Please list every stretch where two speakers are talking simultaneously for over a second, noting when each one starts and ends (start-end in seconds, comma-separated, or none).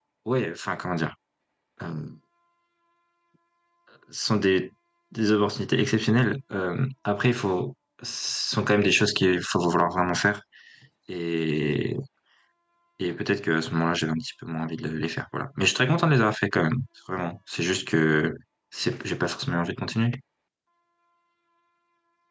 none